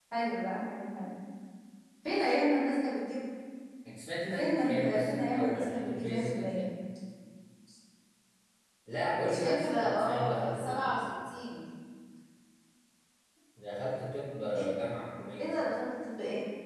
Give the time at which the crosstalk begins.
4 s

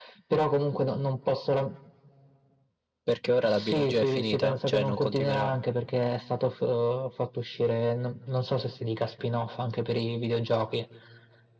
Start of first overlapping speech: 3 s

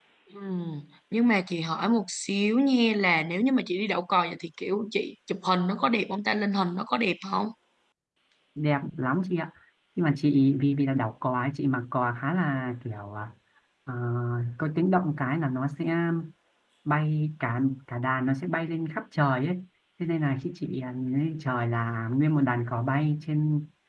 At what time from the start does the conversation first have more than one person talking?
none

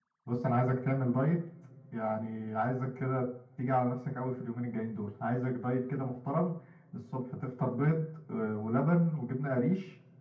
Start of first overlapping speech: none

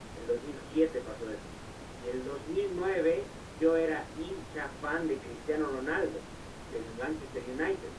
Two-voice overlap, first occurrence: none

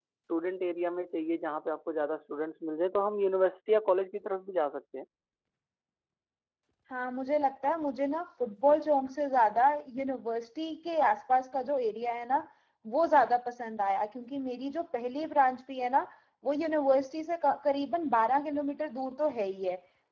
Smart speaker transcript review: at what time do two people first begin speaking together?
none

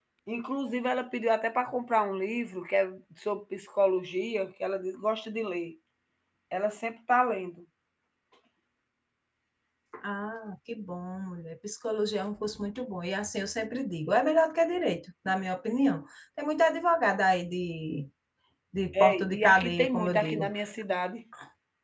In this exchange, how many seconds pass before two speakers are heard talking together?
19 s

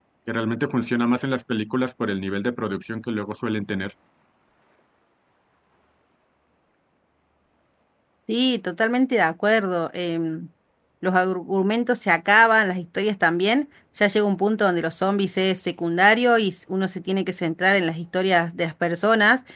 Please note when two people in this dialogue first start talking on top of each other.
none

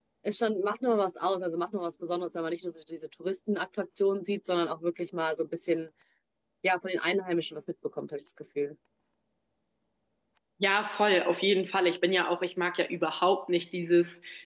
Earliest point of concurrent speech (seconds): none

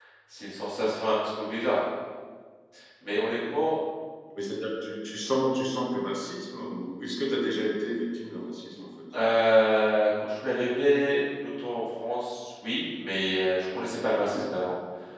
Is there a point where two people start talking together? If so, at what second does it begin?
none

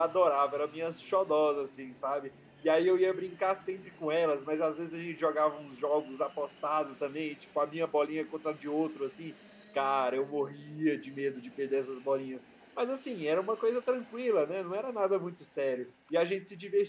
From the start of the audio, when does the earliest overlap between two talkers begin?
none

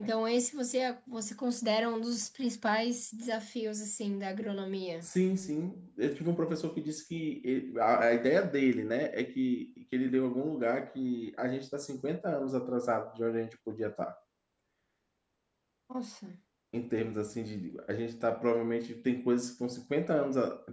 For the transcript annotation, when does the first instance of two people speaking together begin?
none

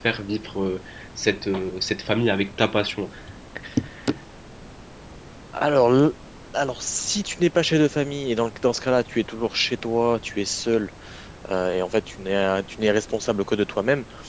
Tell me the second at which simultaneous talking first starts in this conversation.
none

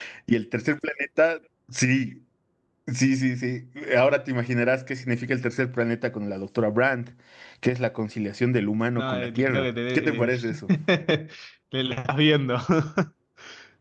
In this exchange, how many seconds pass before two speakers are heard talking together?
9 s

